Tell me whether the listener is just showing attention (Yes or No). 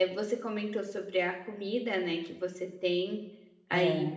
Yes